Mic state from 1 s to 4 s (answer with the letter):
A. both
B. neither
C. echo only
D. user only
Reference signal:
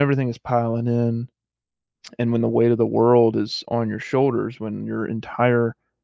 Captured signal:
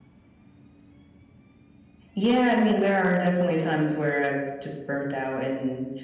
D